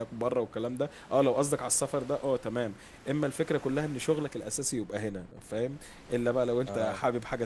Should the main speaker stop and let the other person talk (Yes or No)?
No